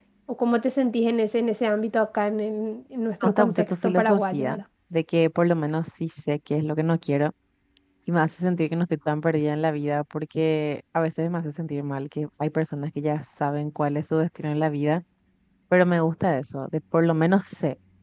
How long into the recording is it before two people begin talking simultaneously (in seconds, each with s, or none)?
3.2 s